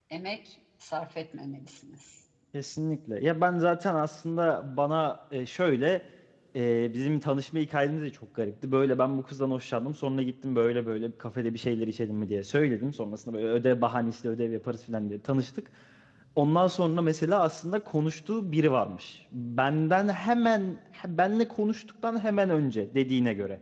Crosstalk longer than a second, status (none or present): none